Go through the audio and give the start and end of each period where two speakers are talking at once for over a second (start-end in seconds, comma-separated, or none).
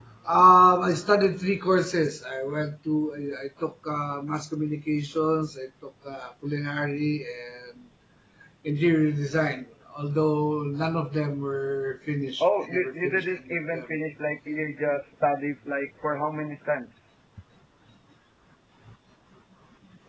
12.4-14.0